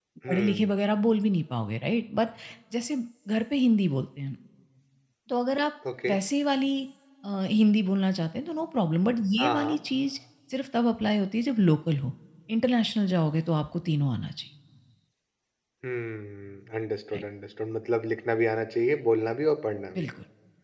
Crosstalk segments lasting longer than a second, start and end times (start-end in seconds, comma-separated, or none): none